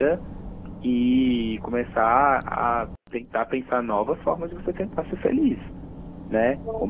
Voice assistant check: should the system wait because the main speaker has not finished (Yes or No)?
Yes